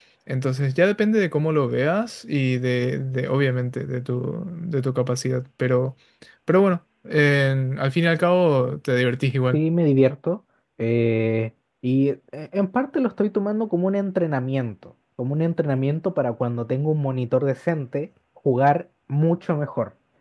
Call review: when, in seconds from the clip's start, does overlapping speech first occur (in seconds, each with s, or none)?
none